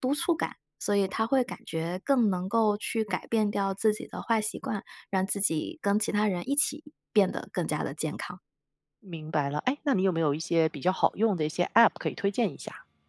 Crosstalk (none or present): none